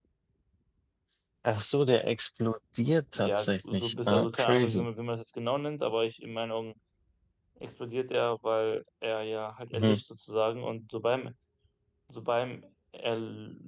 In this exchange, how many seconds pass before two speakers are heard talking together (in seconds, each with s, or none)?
3.1 s